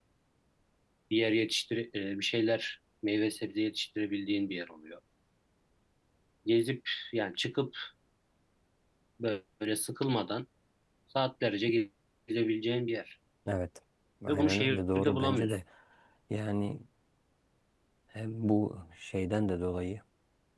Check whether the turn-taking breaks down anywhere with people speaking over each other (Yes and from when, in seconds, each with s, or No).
Yes, from 14.3 s